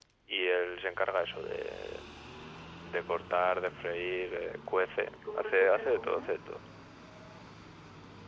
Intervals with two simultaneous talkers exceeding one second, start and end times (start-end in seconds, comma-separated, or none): 4.4-6.3